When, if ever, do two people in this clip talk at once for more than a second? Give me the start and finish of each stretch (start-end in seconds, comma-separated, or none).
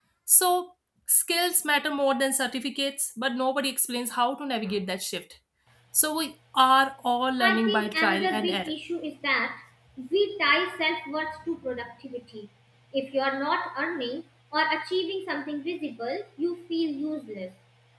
7.4-8.7